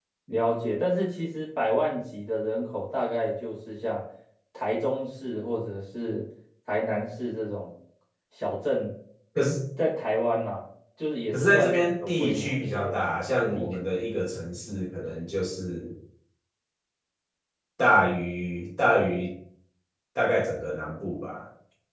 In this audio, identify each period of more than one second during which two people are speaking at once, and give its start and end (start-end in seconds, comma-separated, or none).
11.3-13.0